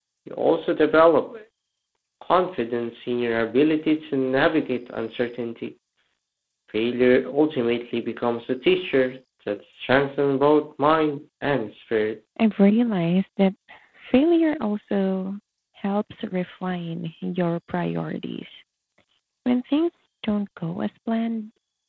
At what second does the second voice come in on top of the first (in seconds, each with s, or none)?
none